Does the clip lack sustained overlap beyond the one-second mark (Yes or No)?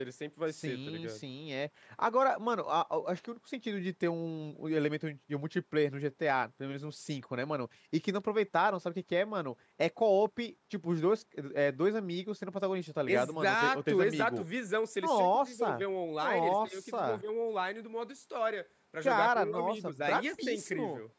No